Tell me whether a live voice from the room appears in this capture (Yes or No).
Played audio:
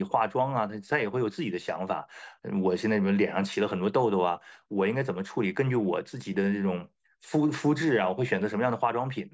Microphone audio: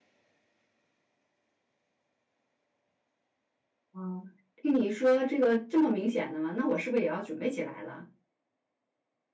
Yes